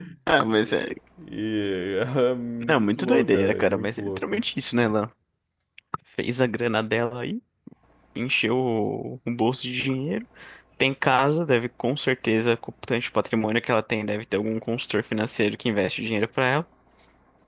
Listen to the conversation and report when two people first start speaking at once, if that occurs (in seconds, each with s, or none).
2.6 s